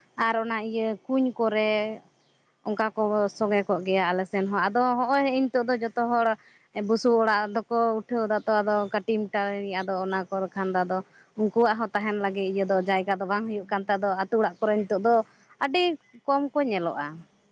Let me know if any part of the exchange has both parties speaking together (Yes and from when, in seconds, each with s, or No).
No